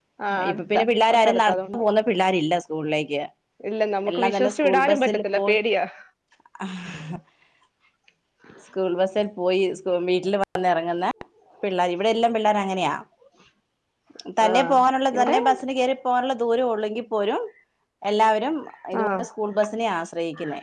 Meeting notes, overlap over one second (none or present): present